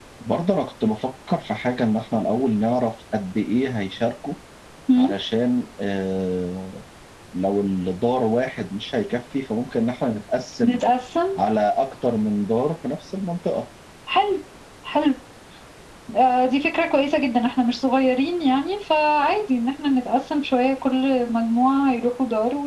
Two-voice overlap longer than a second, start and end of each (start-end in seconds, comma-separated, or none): none